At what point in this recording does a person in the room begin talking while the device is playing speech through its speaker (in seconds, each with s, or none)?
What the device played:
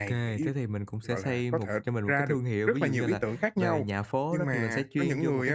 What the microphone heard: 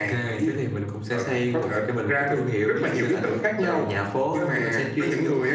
none